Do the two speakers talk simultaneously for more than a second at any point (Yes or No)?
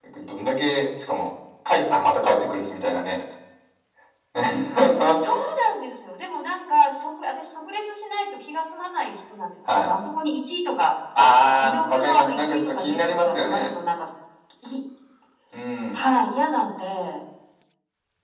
Yes